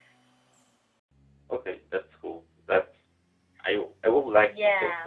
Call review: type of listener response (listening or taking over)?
listening